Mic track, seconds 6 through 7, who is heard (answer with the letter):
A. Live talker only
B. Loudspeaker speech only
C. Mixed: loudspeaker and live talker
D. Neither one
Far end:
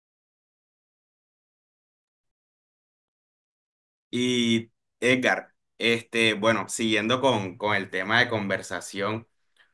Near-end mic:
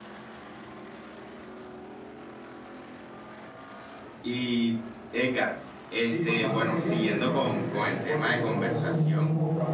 C